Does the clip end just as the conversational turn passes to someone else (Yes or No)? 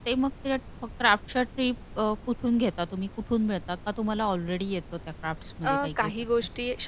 Yes